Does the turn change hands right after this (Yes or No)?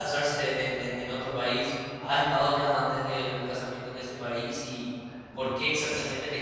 No